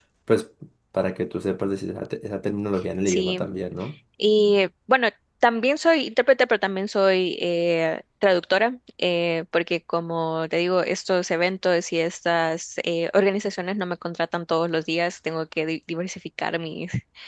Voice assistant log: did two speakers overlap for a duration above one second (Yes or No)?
No